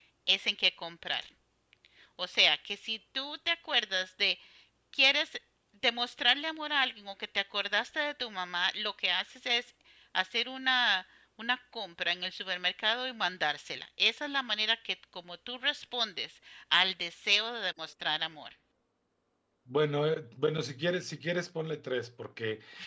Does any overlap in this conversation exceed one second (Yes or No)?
No